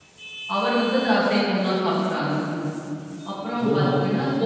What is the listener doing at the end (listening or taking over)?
listening